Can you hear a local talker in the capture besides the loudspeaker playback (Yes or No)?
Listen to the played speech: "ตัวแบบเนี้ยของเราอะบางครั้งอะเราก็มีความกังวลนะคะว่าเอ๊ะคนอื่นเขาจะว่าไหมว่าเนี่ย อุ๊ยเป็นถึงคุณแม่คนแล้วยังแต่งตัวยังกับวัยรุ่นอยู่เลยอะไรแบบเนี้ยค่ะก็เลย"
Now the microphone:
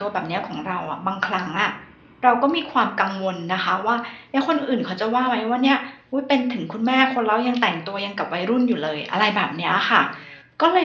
No